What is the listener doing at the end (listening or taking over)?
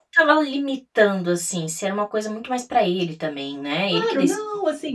taking over